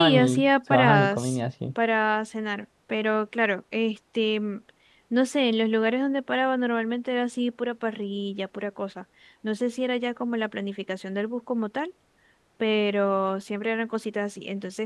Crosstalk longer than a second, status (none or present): present